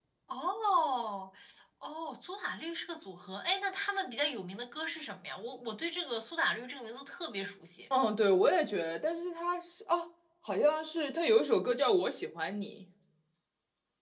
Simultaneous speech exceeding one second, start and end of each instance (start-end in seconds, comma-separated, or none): none